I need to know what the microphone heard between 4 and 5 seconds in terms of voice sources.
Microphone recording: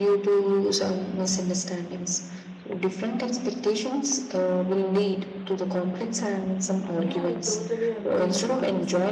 echo only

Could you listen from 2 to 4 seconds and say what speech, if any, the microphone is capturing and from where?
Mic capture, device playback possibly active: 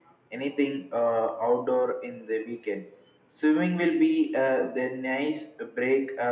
echo only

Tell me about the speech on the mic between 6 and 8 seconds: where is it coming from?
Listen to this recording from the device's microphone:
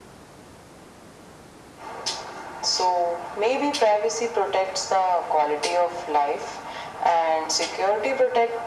echo only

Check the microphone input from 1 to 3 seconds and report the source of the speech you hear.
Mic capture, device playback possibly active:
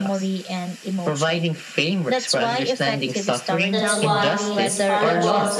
echo only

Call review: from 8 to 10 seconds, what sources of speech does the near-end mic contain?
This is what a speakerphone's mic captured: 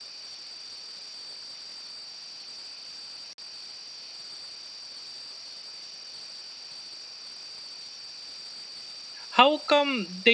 user only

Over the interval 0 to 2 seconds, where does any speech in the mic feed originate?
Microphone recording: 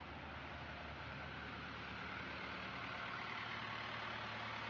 neither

